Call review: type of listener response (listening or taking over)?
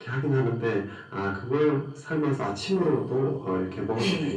taking over